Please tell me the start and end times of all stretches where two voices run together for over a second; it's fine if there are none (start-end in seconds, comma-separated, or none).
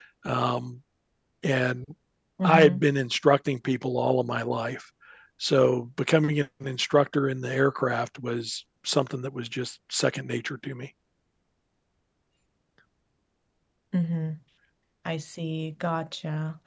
none